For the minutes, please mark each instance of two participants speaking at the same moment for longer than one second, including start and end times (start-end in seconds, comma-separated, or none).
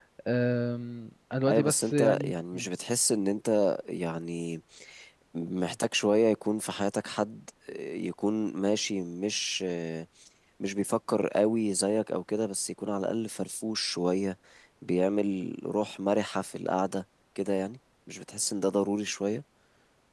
1.5-2.7